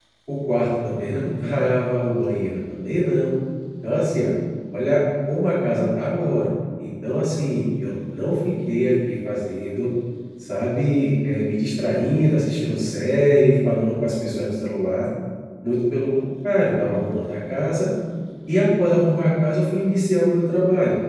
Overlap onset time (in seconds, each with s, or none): none